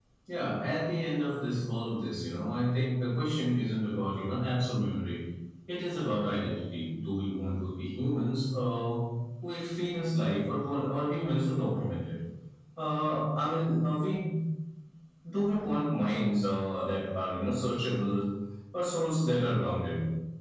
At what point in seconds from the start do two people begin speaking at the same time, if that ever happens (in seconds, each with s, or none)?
none